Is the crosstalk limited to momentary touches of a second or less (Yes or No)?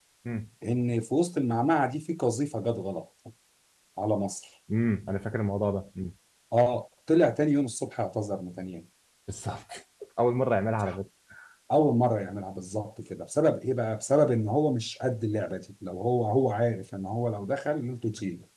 Yes